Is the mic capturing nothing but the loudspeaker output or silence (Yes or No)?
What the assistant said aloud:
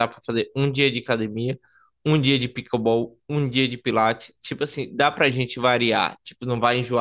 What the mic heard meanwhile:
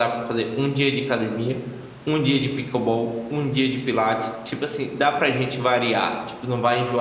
Yes